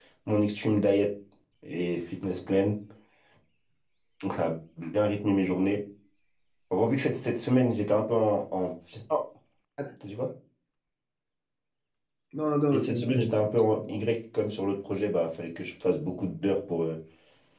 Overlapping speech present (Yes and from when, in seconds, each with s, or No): Yes, from 12.7 s